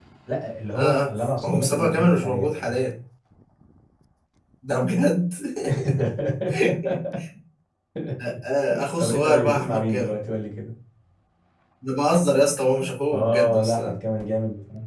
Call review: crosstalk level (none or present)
present